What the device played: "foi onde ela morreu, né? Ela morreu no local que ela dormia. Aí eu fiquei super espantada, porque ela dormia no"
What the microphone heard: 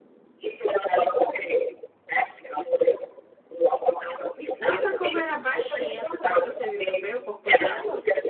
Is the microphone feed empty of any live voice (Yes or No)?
No